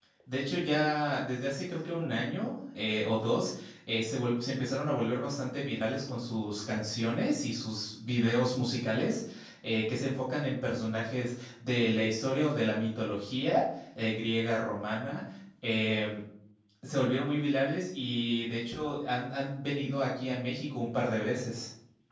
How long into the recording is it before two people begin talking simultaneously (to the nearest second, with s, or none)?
none